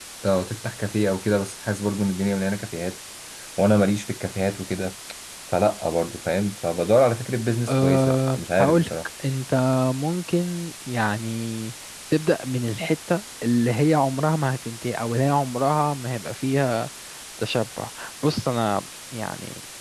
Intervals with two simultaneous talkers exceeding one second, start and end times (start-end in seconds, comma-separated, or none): 7.7-8.9